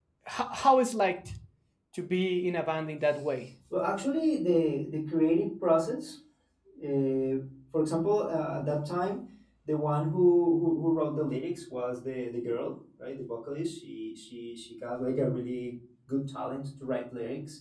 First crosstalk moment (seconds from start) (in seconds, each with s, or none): none